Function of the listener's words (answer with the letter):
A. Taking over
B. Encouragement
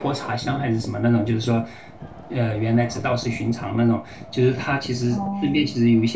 B